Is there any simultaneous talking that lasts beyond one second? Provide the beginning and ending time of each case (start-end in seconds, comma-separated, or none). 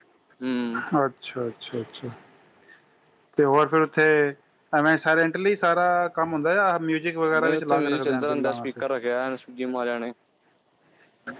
7.4-8.7